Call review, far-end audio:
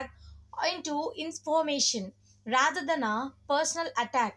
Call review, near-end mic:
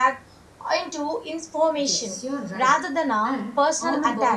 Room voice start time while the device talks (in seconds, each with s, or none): 1.9 s